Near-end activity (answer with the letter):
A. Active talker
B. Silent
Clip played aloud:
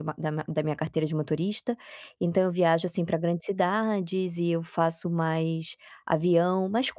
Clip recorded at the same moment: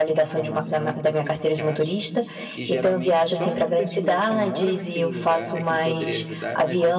A